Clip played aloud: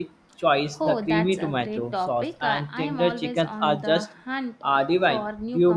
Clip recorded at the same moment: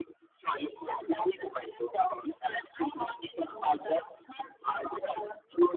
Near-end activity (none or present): none